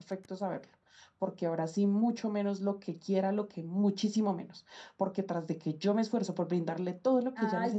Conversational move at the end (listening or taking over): taking over